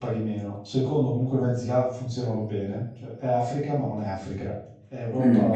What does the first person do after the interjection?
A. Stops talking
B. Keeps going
A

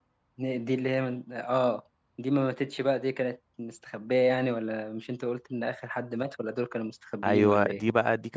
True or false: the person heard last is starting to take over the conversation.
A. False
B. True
B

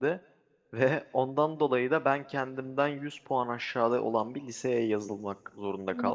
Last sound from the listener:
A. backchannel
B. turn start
B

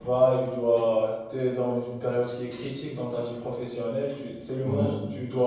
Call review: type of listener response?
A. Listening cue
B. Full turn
A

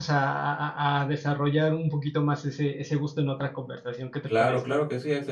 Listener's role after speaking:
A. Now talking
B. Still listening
A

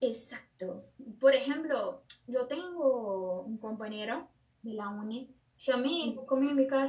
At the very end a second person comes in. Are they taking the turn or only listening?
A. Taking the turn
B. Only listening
B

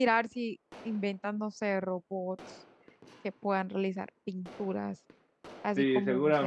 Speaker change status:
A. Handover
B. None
A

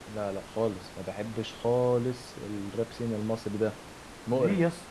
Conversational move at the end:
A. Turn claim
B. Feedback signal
A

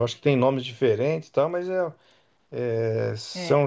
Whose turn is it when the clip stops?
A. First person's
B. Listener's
A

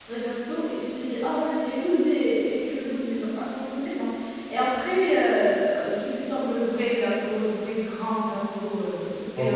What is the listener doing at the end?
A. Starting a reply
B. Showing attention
A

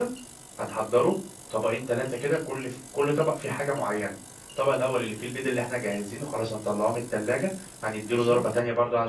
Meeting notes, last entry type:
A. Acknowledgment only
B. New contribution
A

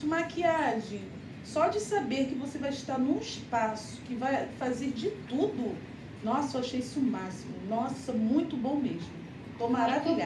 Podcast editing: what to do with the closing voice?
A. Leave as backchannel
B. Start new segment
B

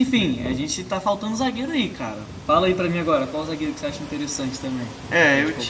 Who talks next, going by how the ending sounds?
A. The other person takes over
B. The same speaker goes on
A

